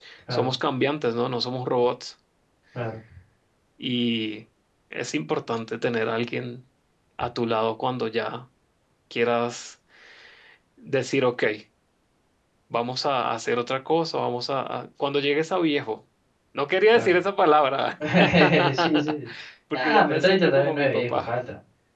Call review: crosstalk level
present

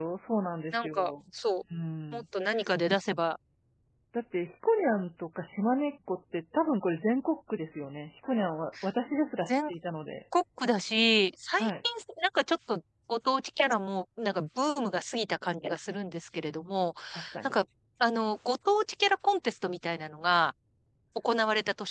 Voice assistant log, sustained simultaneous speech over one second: none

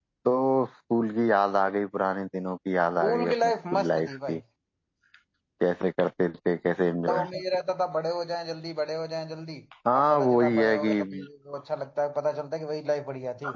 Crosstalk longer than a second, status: present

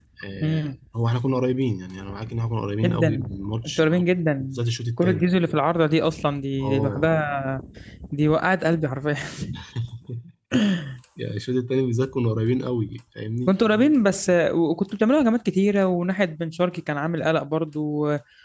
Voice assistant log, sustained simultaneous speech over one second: none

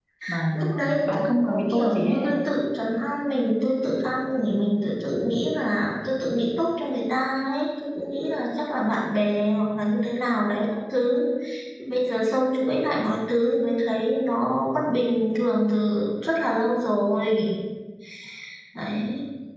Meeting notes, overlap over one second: present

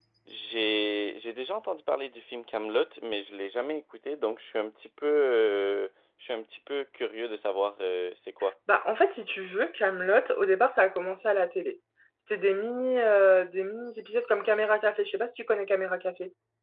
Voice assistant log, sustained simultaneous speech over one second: none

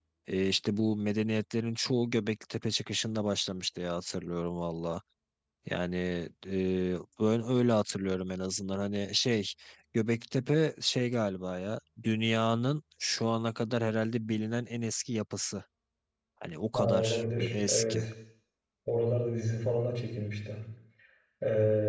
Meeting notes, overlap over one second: present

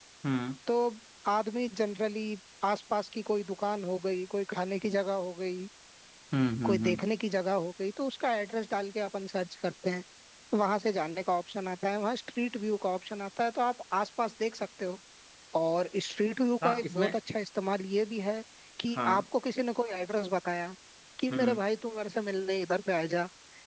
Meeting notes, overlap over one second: none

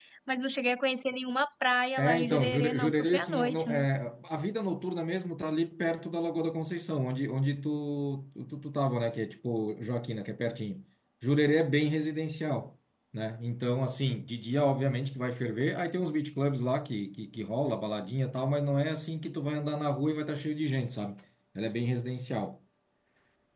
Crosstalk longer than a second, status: present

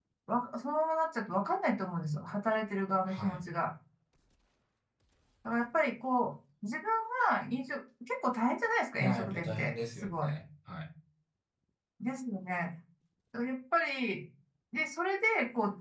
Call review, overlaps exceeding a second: present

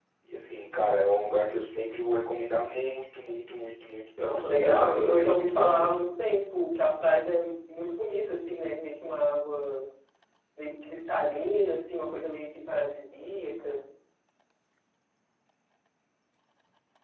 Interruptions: present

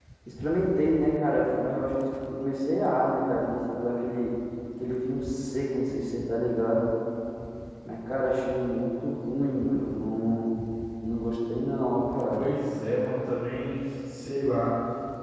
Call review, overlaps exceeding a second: none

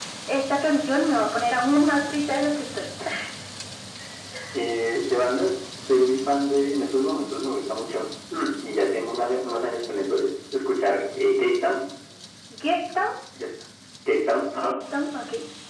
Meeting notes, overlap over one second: none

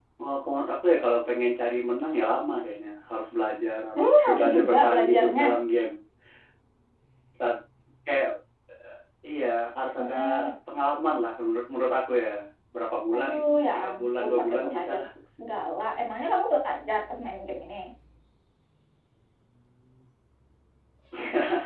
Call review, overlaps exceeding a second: present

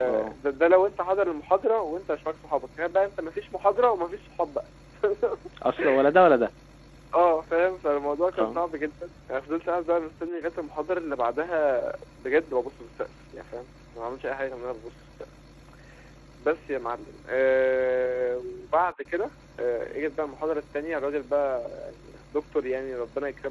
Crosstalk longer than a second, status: none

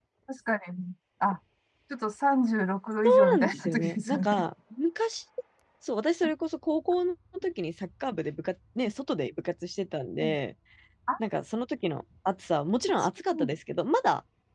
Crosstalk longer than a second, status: present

